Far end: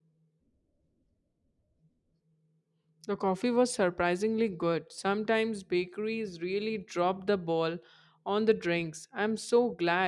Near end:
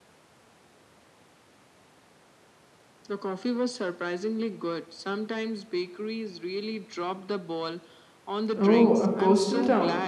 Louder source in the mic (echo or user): user